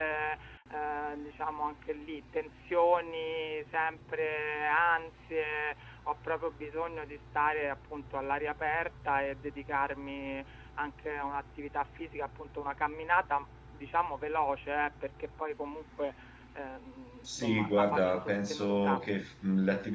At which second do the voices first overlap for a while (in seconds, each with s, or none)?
17.3 s